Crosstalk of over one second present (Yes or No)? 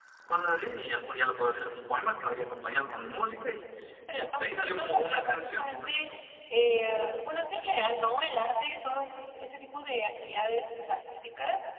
Yes